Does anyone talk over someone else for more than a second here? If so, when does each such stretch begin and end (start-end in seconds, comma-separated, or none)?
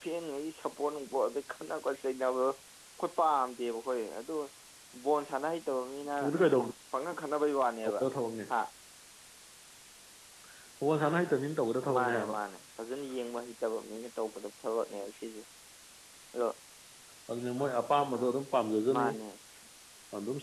none